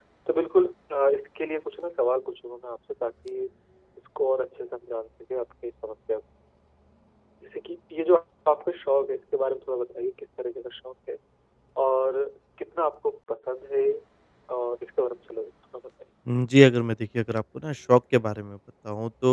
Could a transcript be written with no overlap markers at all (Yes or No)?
Yes